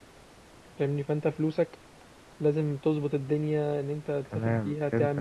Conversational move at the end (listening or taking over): taking over